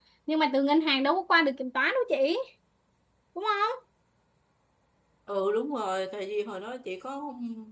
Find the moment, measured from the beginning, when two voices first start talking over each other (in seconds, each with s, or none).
none